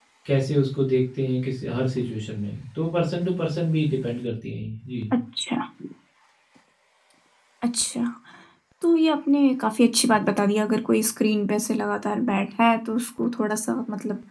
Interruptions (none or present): none